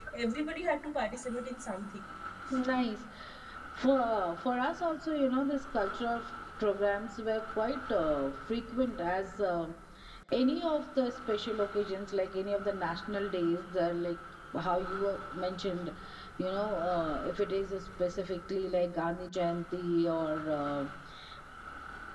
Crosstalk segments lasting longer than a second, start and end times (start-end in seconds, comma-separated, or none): none